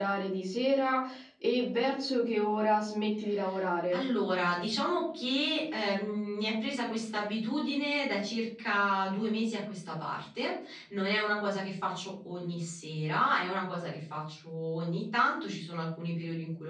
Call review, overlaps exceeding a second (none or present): none